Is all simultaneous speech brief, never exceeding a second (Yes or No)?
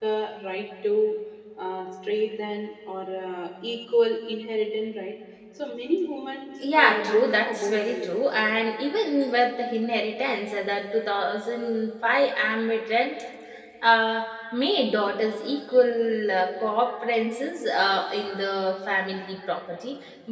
No